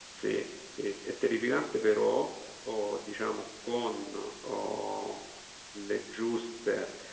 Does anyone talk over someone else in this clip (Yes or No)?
No